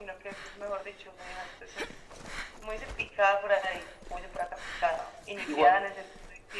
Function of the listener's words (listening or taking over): listening